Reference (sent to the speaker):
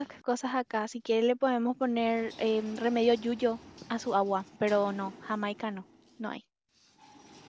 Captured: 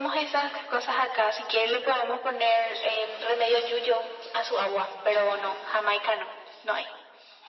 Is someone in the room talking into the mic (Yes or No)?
No